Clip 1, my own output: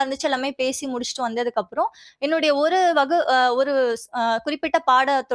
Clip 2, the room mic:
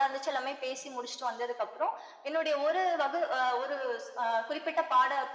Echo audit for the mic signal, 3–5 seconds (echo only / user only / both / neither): echo only